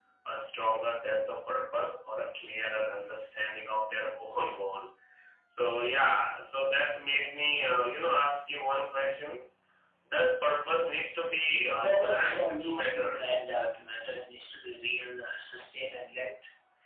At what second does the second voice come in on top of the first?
11.7 s

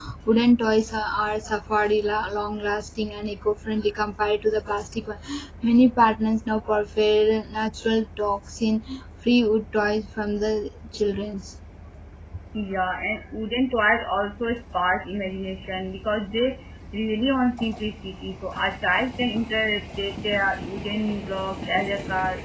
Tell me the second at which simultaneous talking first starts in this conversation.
none

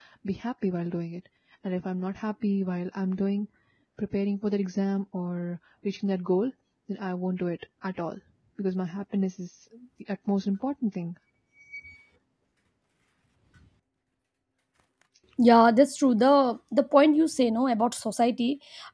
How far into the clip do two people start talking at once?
none

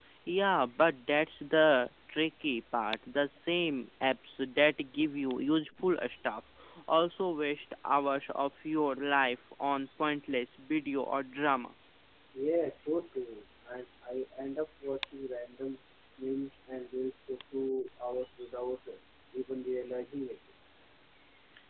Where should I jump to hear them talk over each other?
none

